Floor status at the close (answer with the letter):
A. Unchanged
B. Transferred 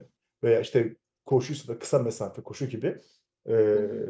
A